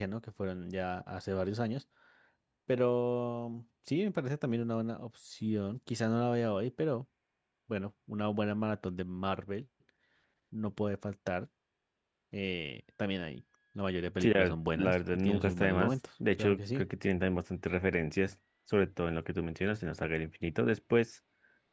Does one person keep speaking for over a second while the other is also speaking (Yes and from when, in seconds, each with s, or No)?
Yes, from 14.2 s